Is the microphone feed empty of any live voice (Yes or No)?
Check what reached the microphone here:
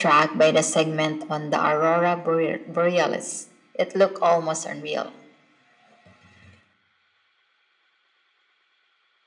Yes